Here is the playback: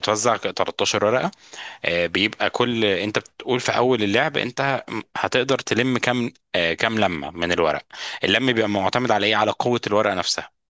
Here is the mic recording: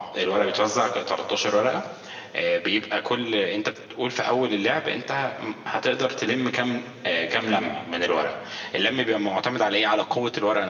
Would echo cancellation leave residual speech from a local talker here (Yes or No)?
No